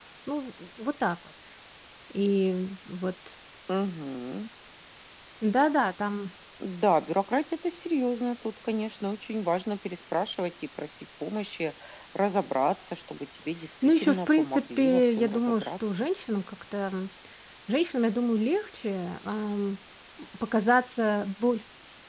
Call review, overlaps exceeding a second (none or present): present